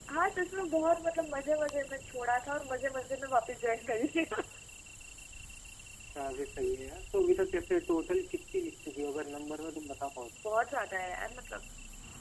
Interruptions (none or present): none